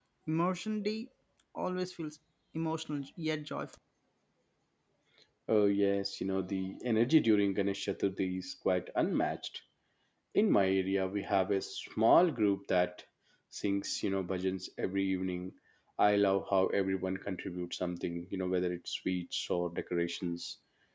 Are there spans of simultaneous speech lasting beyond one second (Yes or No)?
No